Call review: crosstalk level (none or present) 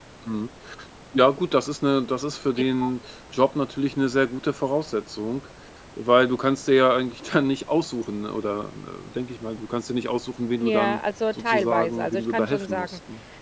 present